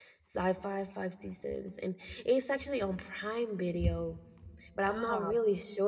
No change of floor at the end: Yes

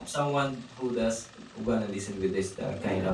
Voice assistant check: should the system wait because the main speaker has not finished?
Yes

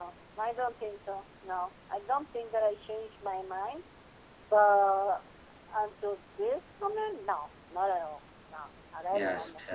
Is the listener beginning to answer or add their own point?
Yes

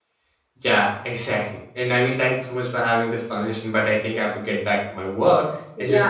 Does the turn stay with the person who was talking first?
No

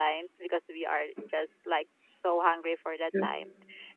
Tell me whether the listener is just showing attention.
Yes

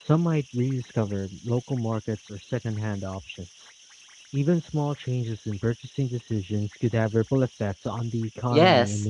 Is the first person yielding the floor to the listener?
Yes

